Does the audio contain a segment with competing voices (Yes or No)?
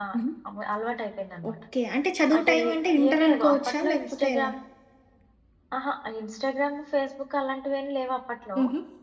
Yes